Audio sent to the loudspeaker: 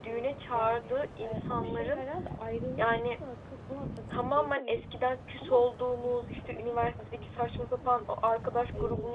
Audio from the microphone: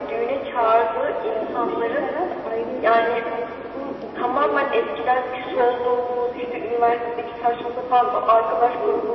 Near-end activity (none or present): none